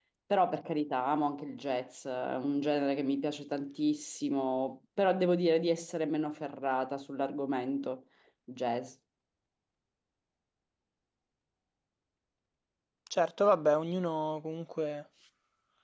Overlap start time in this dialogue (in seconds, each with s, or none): none